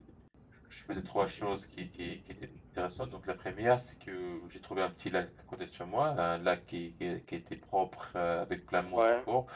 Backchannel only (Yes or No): Yes